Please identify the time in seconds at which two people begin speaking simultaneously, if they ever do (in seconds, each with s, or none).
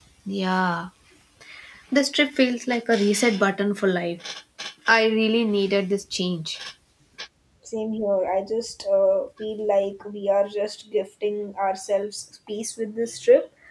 none